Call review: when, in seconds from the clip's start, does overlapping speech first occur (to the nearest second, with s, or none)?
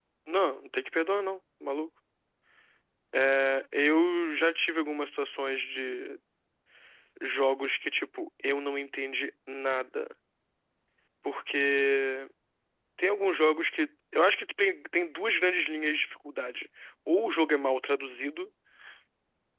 none